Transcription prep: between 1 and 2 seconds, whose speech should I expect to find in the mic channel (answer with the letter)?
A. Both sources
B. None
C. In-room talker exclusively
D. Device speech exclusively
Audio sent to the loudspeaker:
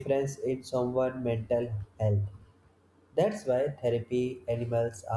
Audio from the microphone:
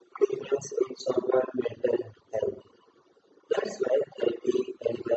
D